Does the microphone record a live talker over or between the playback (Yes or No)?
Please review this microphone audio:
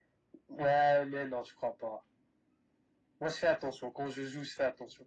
No